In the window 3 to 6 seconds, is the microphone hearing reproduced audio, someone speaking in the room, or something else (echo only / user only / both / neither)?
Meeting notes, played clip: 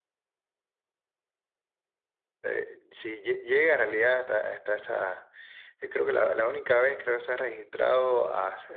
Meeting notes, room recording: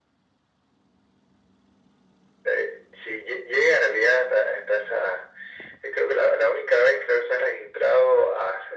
echo only